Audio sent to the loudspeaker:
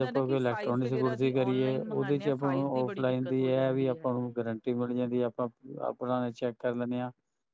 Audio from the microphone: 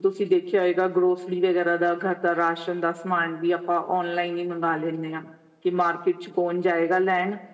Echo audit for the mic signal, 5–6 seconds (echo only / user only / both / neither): user only